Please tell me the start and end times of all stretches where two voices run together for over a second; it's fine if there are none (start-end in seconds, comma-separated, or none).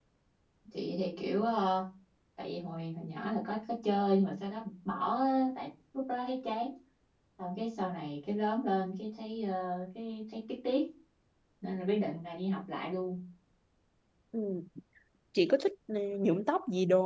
none